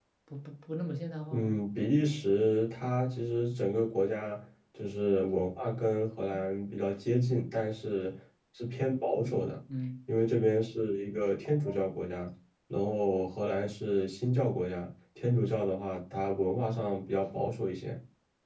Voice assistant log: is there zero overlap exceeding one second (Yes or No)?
Yes